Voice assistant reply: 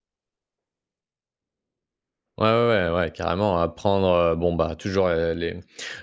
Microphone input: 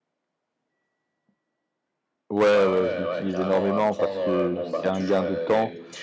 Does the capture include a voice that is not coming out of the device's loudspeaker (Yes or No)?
Yes